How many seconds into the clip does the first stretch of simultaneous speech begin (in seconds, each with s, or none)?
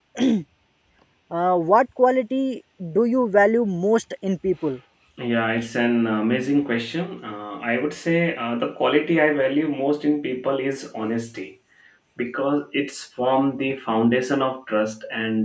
none